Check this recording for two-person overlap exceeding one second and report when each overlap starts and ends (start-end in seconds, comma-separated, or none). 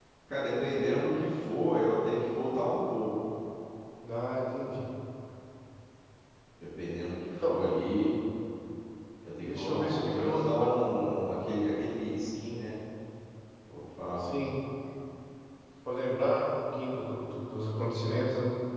9.4-10.7